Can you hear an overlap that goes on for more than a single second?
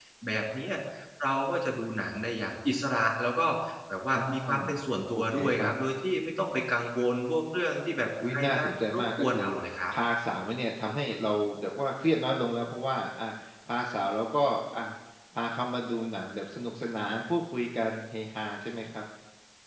Yes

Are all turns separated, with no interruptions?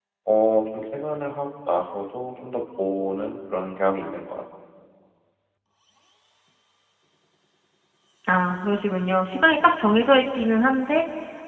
Yes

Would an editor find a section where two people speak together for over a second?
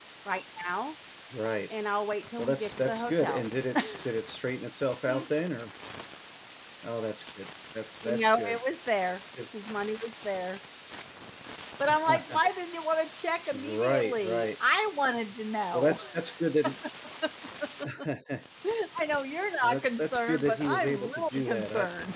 Yes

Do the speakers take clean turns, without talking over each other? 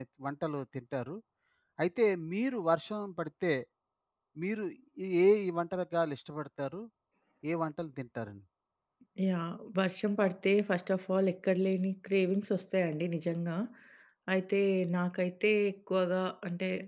Yes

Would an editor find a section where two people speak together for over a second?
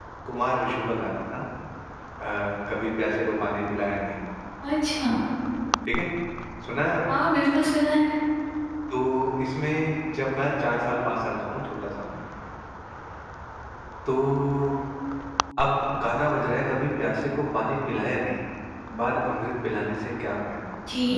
No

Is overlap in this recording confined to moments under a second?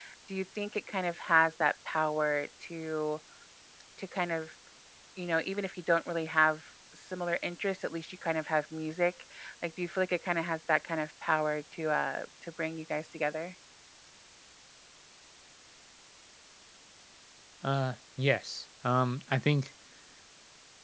Yes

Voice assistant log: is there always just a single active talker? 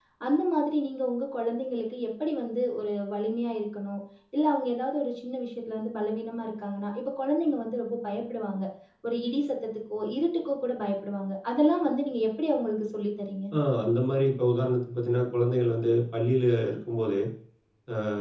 Yes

